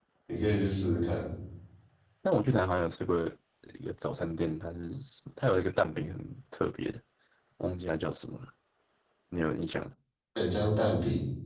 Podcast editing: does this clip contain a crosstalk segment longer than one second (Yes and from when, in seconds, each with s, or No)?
No